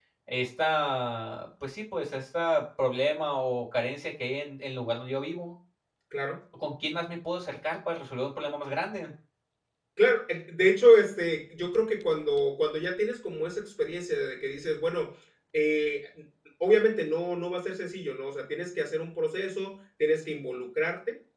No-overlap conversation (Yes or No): Yes